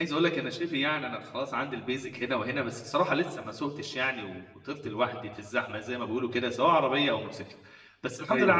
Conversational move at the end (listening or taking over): listening